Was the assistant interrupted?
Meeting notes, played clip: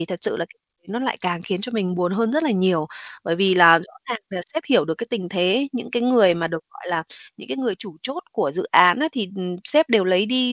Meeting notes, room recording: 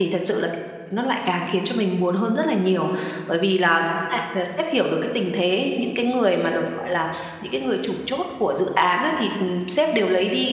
No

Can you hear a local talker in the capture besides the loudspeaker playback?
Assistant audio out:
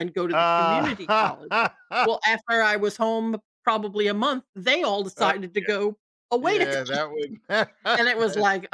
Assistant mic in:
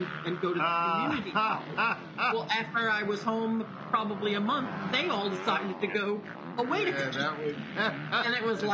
No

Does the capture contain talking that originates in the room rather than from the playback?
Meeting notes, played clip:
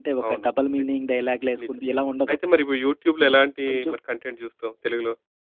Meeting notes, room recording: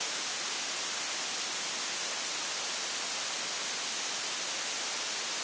No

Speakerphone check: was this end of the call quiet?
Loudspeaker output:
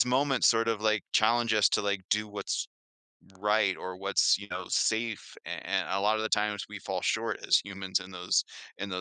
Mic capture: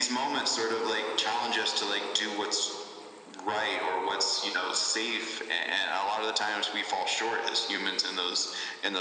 Yes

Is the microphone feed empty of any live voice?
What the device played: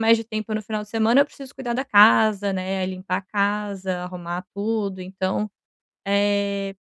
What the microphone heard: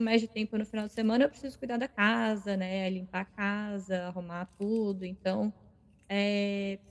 Yes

